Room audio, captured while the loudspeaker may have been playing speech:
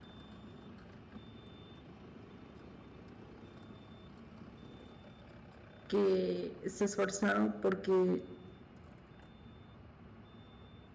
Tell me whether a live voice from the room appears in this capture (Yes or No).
Yes